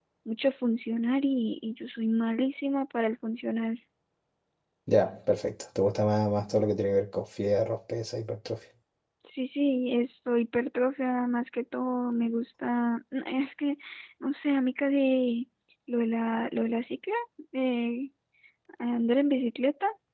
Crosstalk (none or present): none